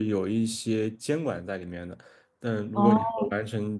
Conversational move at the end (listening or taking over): listening